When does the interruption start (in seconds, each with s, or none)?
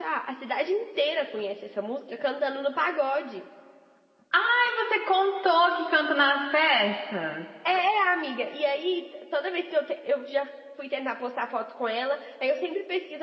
none